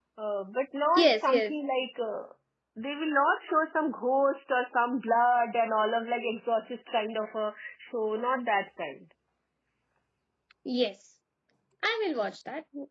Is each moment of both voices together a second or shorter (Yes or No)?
Yes